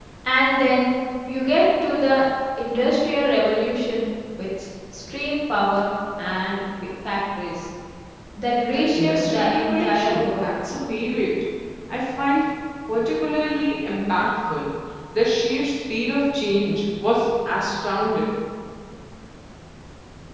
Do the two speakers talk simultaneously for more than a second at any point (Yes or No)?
Yes